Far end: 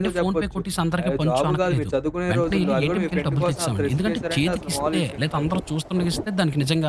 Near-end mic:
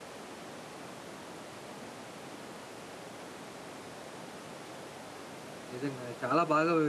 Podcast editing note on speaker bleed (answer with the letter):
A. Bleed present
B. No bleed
B